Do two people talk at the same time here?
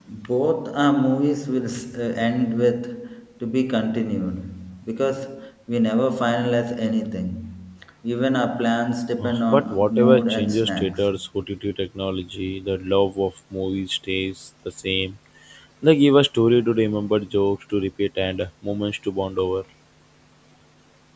Yes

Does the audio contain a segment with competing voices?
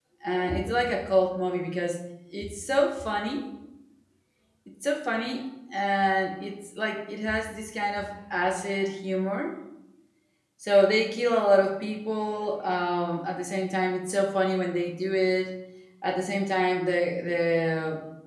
No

